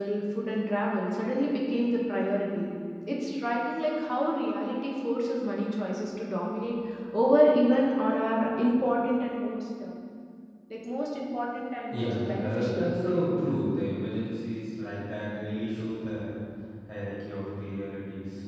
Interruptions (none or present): present